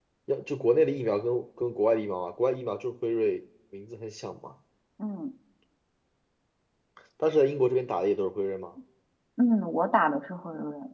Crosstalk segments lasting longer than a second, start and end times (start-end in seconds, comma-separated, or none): none